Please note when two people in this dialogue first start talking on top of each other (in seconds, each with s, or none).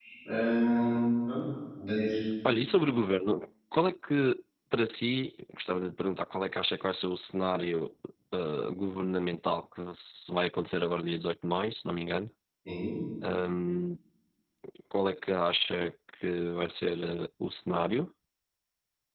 none